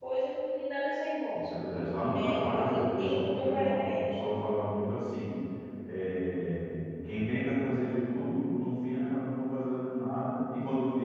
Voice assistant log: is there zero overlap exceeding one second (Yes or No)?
No